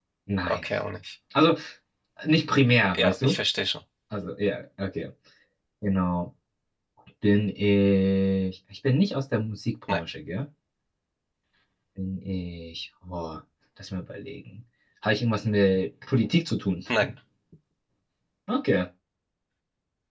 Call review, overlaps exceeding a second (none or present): none